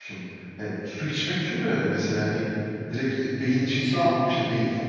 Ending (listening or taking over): listening